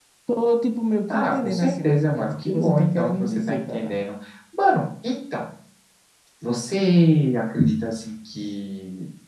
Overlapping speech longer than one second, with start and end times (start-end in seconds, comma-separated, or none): 1.1-4.0